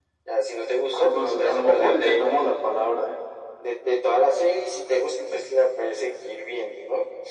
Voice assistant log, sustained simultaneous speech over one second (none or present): present